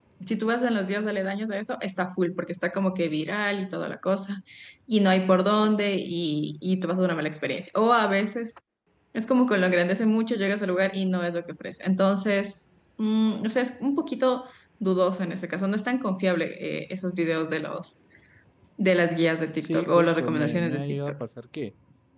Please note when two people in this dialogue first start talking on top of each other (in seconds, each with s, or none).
19.6 s